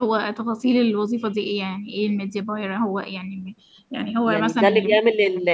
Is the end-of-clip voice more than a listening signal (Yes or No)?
Yes